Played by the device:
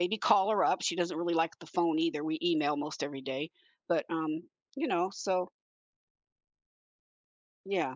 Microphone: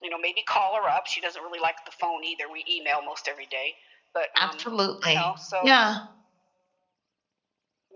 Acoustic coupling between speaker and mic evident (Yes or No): Yes